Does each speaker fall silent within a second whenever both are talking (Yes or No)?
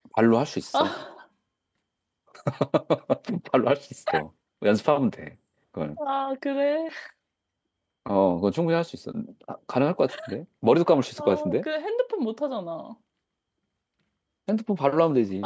Yes